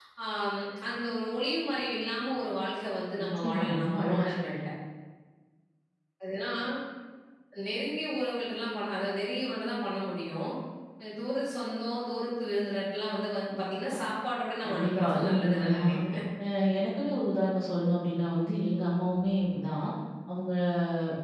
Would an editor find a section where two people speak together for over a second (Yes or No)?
Yes